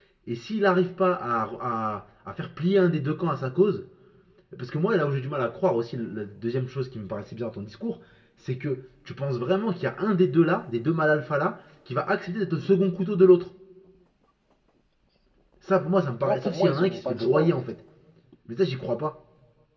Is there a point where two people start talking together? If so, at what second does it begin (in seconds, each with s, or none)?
16.2 s